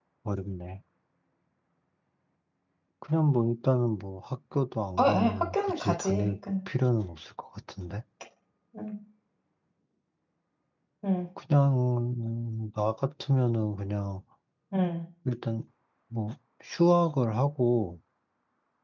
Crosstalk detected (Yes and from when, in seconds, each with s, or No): Yes, from 5.0 s